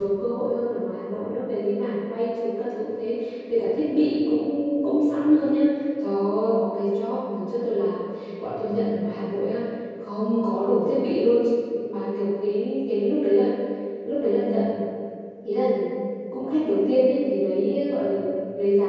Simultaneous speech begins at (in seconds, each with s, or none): none